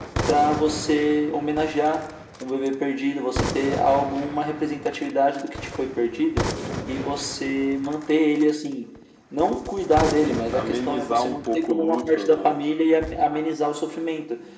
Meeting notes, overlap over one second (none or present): present